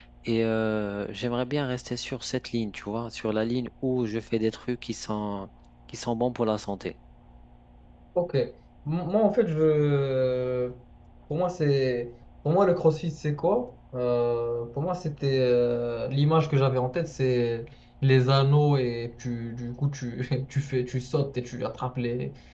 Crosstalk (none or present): none